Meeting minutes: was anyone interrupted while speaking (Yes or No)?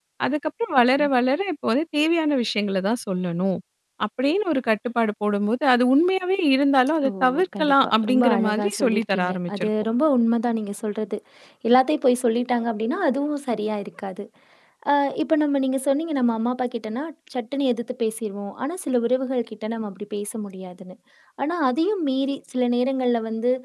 Yes